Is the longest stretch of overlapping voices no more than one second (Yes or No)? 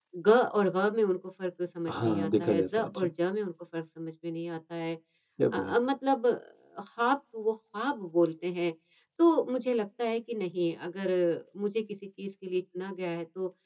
No